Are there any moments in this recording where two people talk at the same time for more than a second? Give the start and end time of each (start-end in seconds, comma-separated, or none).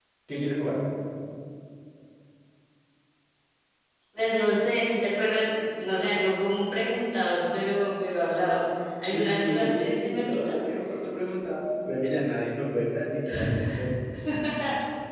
9.1-10.5